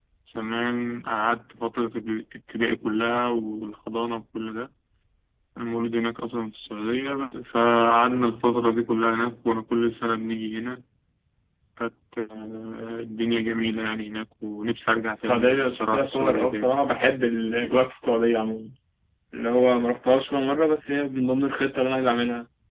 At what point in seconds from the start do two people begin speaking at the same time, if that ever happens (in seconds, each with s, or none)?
15.2 s